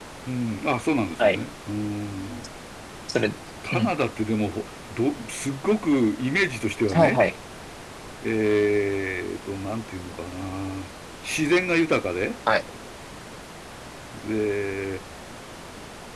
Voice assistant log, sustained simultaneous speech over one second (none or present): none